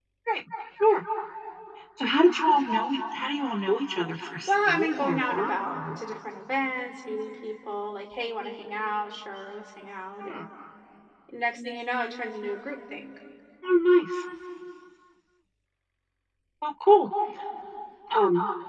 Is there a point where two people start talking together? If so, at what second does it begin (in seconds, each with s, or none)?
4.5 s